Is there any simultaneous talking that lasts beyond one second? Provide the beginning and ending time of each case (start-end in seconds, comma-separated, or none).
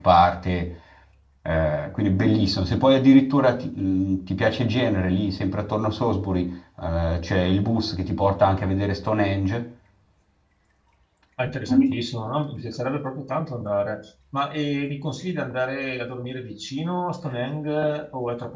none